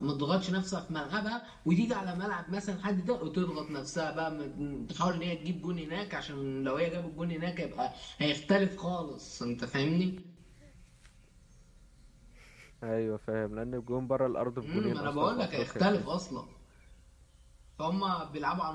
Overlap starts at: 14.6 s

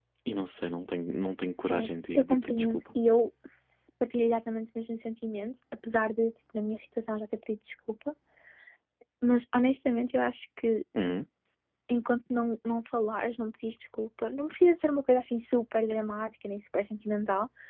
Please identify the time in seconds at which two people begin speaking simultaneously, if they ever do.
1.6 s

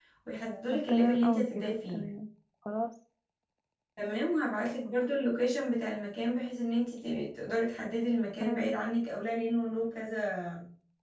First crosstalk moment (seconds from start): 0.7 s

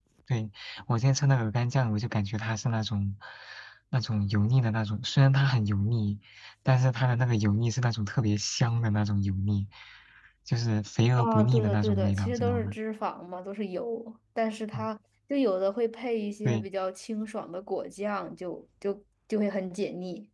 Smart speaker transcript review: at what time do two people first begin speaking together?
11.2 s

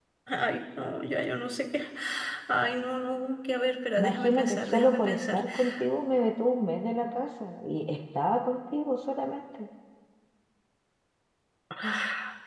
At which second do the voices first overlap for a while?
4.0 s

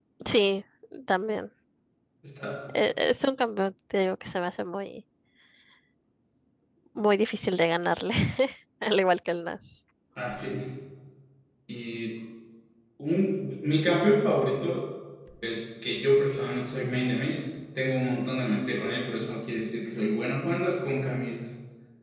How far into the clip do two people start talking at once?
none

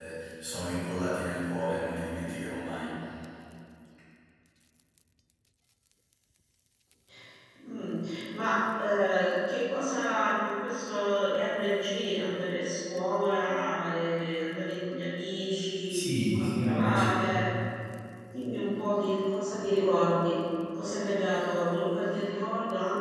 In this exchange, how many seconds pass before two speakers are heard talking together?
15.9 s

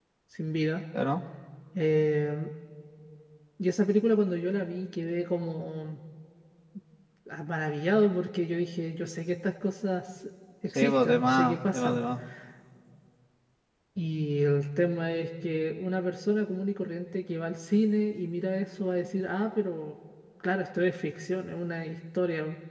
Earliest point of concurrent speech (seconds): 10.8 s

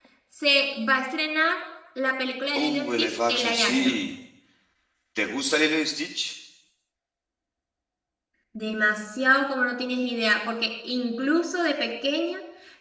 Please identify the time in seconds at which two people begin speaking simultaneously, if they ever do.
2.6 s

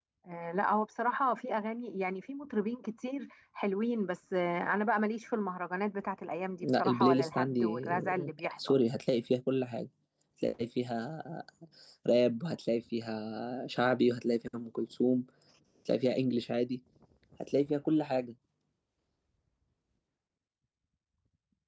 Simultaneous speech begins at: 6.6 s

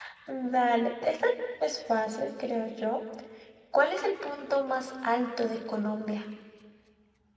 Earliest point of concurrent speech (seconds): none

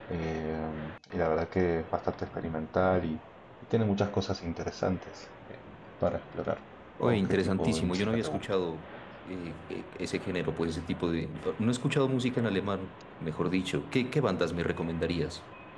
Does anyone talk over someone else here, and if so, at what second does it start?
7.0 s

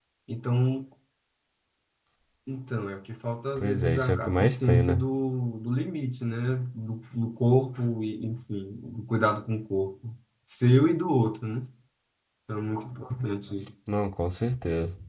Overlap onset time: 3.6 s

